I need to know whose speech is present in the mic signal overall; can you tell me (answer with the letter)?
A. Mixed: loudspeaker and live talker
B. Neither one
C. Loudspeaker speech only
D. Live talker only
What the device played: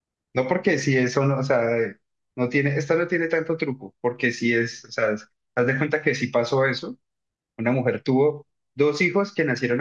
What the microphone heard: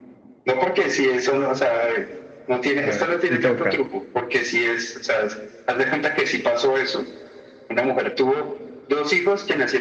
A